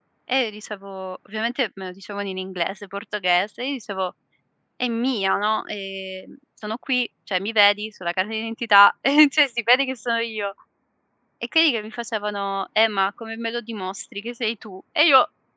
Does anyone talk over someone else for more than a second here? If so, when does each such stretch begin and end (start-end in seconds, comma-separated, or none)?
none